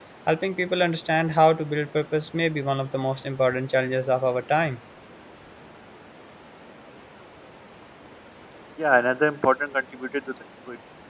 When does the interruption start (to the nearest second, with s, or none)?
none